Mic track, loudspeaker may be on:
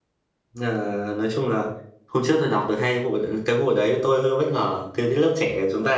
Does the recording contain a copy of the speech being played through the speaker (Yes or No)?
No